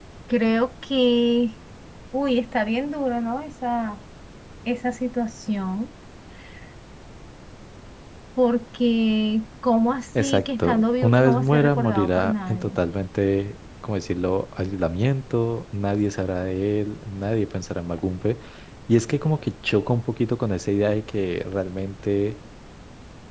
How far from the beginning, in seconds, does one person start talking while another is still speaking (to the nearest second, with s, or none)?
10 s